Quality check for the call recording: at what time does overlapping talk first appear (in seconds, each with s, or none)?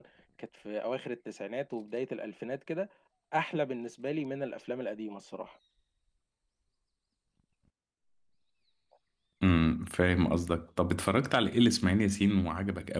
none